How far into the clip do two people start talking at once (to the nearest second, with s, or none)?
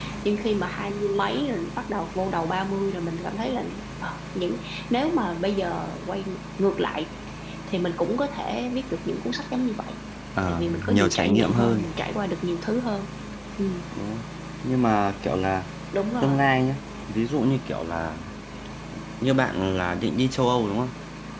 10 s